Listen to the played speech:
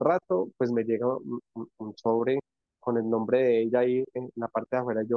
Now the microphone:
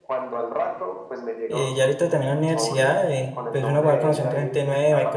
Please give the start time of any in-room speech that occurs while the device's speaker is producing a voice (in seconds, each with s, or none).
1.5 s